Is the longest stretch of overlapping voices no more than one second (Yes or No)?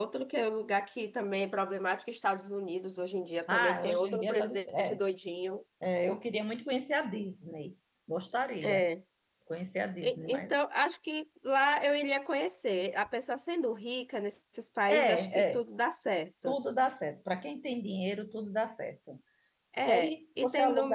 No